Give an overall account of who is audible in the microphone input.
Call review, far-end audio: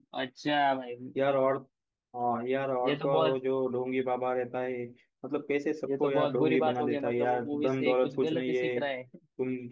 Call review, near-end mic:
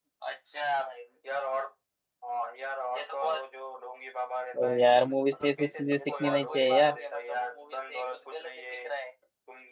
both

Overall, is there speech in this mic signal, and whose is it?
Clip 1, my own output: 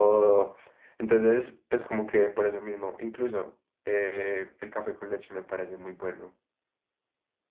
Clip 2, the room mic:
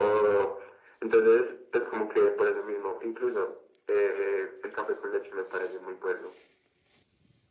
echo only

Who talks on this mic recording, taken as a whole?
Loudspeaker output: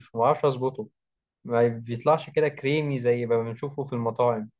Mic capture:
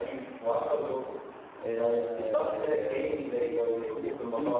both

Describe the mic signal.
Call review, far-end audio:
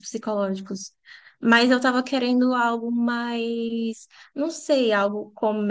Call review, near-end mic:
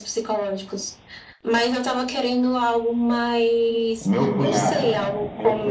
both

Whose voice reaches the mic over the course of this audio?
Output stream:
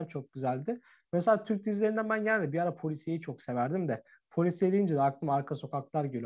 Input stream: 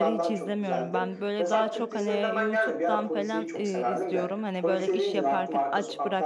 both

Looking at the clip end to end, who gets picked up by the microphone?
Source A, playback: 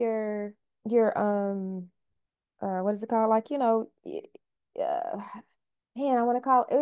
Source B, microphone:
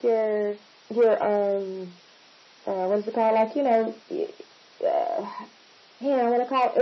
echo only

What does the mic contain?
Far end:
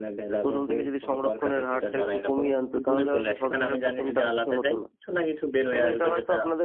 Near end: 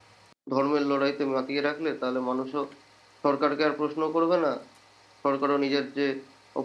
user only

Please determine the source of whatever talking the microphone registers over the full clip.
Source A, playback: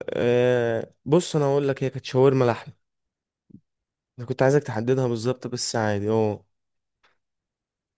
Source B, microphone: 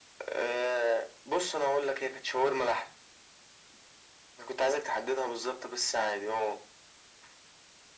echo only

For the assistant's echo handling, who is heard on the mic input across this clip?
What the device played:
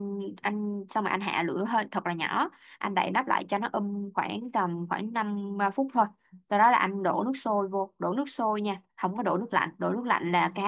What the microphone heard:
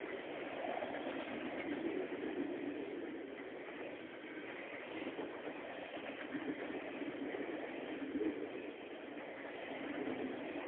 neither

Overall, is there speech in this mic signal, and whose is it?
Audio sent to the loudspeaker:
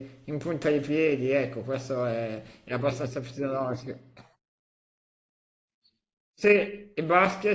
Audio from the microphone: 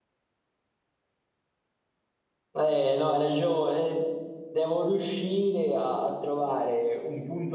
user only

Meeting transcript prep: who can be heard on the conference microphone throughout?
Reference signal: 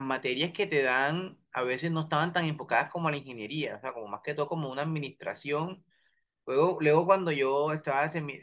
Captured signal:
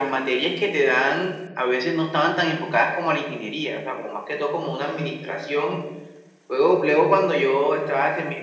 echo only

